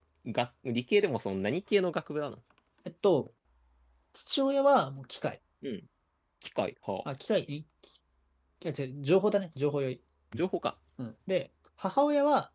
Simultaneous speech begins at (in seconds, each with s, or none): none